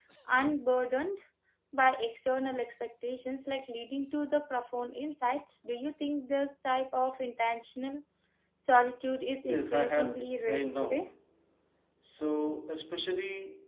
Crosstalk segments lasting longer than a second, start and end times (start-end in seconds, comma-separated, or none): 9.5-11.1